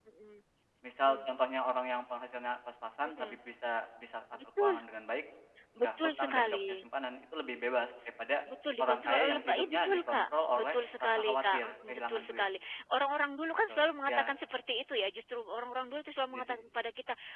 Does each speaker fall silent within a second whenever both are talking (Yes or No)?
No